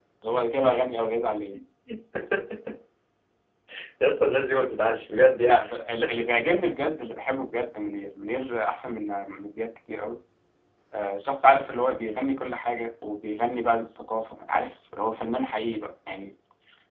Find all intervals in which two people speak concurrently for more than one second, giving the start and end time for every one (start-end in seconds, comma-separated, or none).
none